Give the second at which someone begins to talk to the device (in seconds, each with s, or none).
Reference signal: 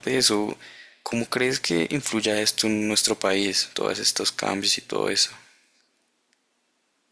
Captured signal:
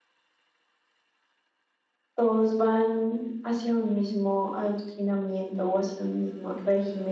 2.1 s